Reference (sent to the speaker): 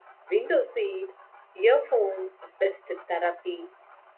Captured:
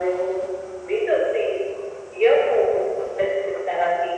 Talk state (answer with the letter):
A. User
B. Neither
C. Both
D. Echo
D